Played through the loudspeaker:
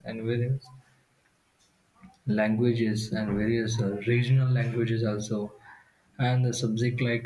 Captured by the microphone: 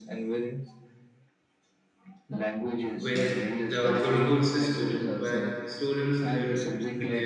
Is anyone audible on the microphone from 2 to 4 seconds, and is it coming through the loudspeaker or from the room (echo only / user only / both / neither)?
both